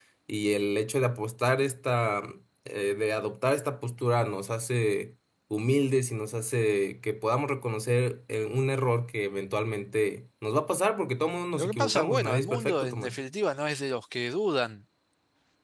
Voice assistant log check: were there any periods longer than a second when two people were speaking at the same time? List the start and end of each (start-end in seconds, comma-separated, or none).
11.5-13.2